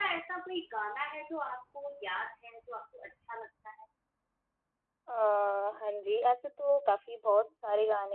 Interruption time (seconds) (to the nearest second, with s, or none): none